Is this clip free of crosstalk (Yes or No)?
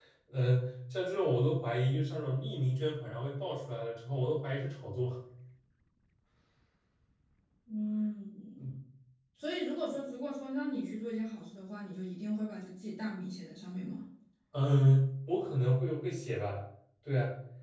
Yes